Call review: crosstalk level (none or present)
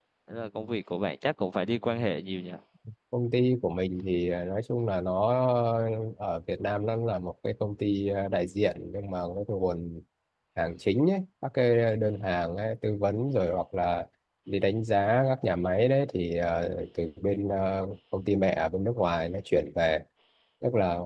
none